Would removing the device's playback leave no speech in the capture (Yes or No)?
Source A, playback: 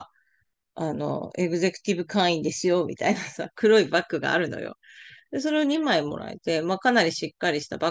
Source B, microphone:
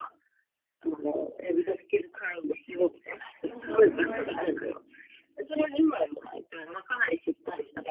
No